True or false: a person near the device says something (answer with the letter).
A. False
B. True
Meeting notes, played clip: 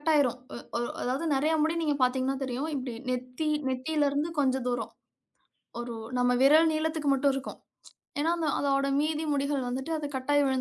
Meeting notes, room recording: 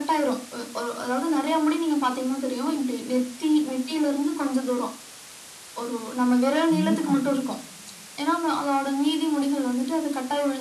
B